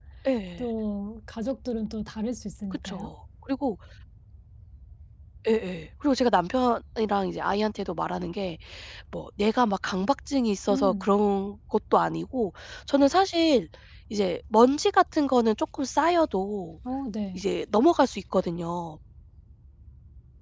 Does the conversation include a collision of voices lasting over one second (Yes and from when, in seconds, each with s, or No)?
No